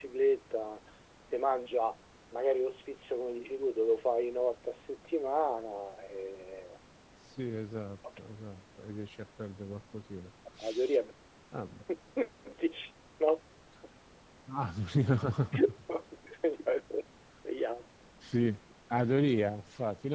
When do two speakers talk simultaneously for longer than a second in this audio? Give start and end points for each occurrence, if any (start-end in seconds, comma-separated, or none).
none